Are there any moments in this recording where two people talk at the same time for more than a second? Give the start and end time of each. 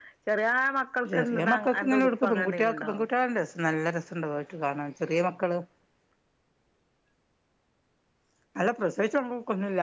1.1-2.9

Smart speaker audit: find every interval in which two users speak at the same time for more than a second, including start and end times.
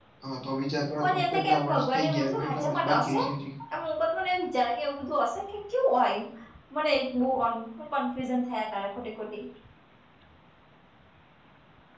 1.0-3.2

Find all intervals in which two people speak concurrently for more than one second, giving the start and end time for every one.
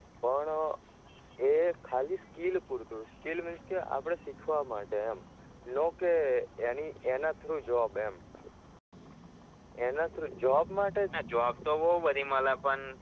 none

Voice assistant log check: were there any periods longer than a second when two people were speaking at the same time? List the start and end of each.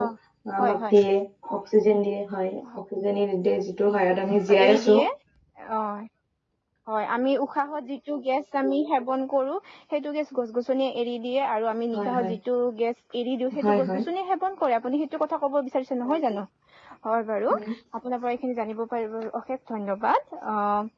none

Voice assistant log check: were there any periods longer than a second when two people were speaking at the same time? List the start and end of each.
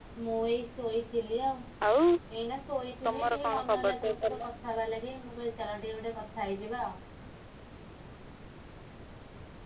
3.0-4.4

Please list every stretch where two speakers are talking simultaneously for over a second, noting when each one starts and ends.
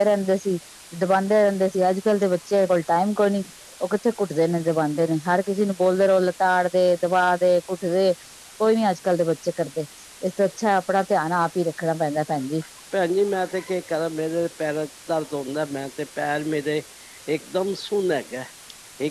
none

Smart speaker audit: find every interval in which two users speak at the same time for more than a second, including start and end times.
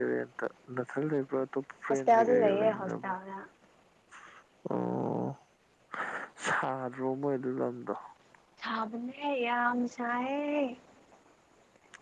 1.9-3.2

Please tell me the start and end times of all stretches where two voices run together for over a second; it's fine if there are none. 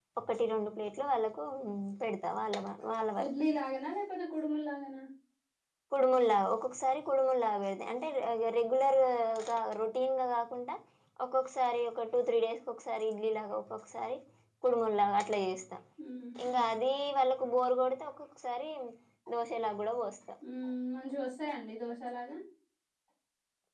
none

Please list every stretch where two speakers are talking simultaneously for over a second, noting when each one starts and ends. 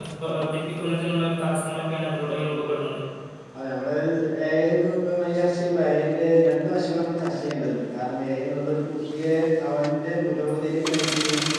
none

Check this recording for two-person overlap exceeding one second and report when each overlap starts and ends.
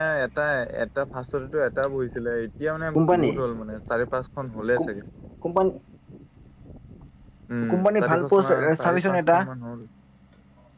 7.7-9.4

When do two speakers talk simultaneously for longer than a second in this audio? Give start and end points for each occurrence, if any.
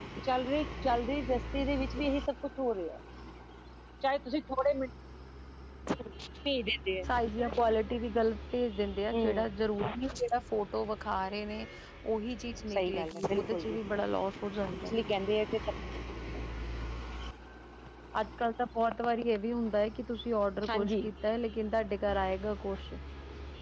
12.7-14.2

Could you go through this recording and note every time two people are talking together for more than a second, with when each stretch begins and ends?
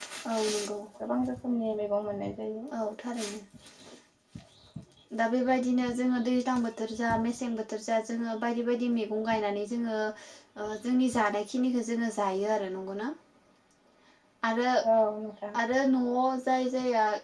none

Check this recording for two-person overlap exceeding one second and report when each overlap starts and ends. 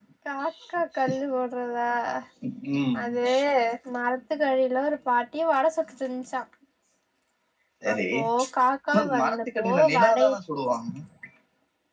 8.9-10.3

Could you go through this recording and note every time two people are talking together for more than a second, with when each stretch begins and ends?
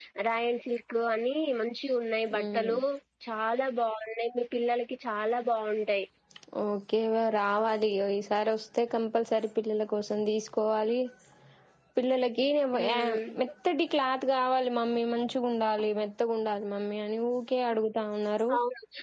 none

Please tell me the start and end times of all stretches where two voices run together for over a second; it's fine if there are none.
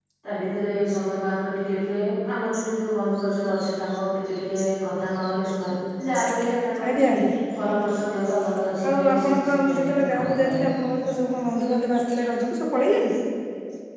8.9-10.6

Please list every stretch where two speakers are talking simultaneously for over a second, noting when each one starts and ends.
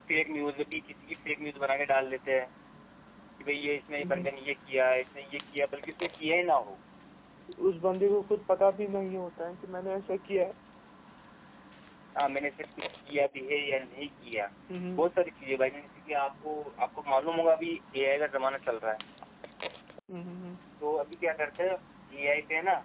none

